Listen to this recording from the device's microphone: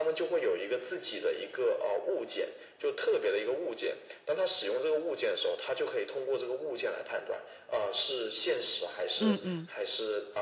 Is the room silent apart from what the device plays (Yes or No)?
No